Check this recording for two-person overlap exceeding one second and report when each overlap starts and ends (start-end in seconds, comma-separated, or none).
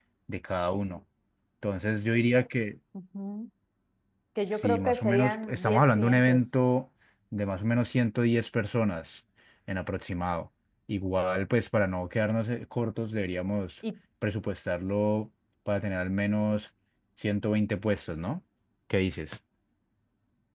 4.5-6.4